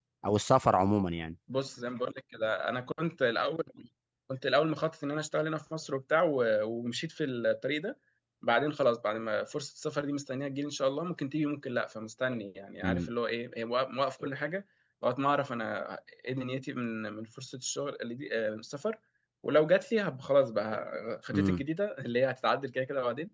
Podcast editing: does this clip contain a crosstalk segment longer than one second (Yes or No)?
No